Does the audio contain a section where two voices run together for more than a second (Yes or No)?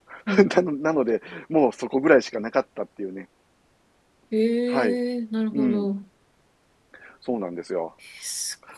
No